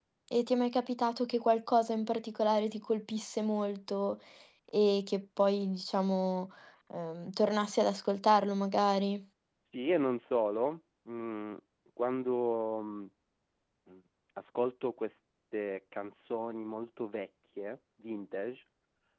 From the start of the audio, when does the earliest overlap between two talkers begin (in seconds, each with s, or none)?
none